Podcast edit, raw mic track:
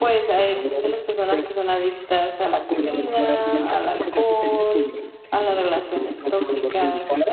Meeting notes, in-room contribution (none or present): present